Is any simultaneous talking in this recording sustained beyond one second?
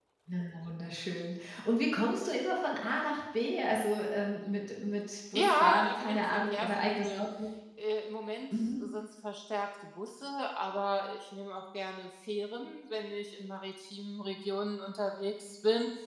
Yes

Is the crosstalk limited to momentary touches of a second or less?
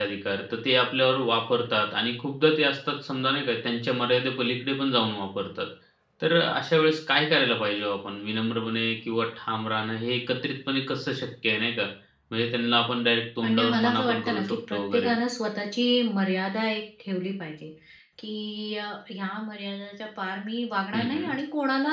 No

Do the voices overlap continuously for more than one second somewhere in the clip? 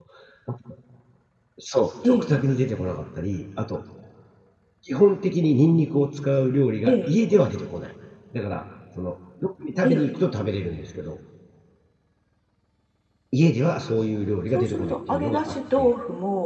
Yes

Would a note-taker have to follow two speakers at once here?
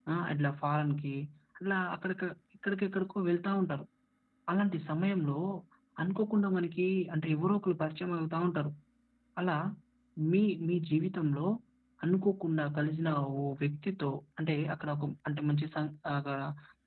No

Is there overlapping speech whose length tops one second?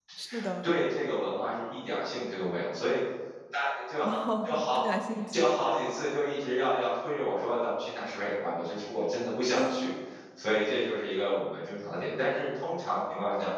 No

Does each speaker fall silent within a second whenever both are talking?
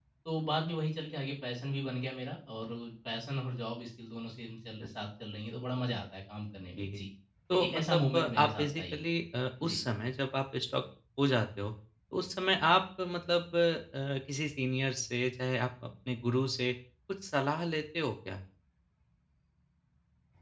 No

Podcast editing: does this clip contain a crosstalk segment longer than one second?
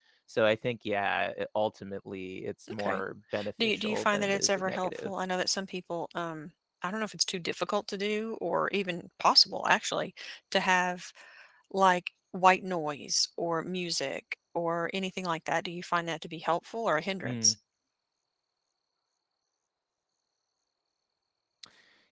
Yes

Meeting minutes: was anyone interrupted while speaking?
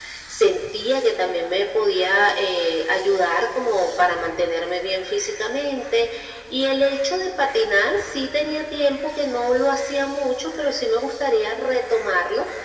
No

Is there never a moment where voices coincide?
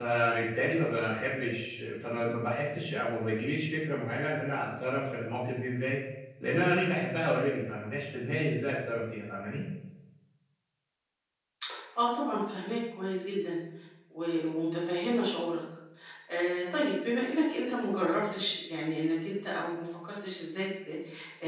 Yes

